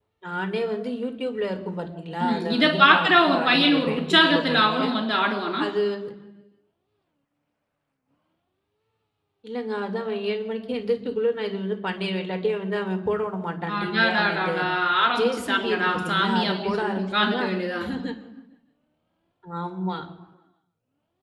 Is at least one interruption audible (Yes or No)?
Yes